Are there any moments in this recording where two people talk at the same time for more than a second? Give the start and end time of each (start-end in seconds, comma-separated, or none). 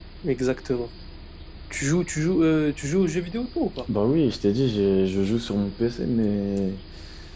none